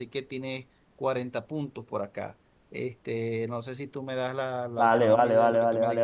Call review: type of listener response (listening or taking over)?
taking over